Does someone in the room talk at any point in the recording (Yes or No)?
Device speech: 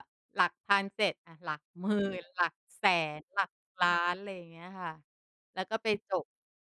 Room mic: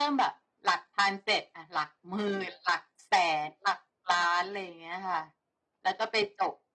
No